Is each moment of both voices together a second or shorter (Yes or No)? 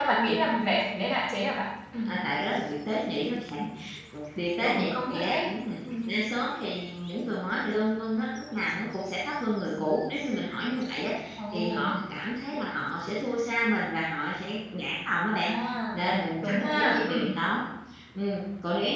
No